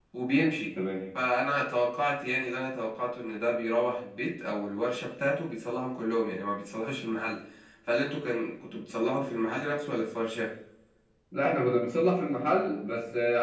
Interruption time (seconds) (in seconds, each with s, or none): none